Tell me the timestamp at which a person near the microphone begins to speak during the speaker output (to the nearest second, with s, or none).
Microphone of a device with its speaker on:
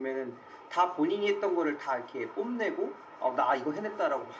none